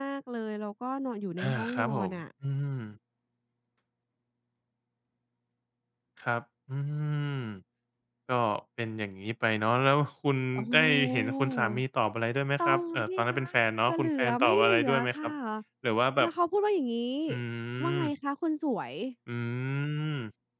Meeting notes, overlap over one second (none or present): present